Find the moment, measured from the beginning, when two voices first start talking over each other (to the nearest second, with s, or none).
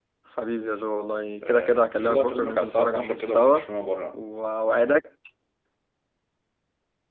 1 s